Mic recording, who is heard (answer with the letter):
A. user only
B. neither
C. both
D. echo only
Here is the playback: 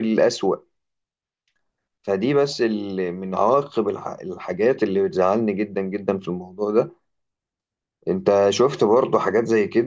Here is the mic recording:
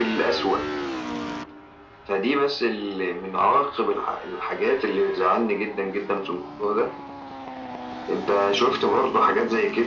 D